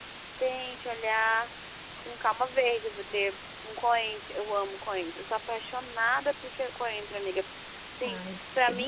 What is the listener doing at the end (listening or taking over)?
listening